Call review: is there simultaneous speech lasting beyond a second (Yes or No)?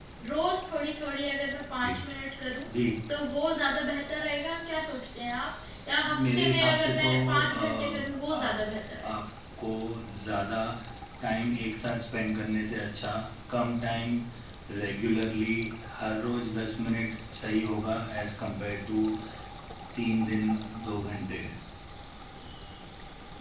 Yes